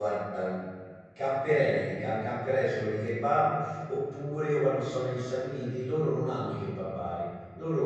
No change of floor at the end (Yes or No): Yes